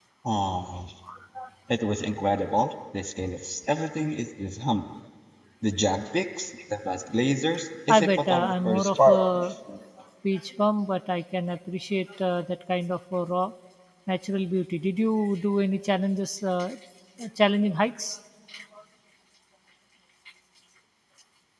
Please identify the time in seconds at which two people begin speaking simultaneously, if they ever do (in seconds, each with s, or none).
7.9 s